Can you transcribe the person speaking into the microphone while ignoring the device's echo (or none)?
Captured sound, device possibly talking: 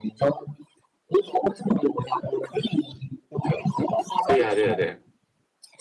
对呀、对呀、对呀、